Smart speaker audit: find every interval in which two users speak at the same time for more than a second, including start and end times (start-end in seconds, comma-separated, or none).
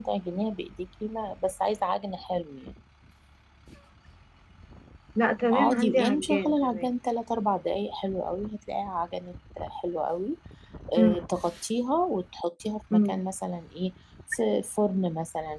5.5-6.9